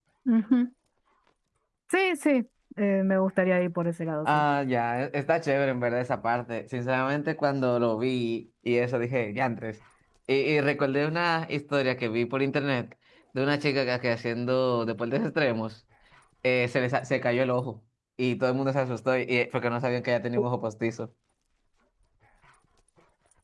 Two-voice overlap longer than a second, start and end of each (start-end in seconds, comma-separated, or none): none